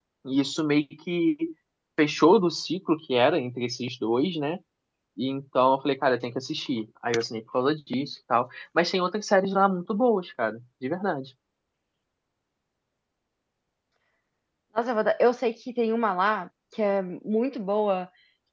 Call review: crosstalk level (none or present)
none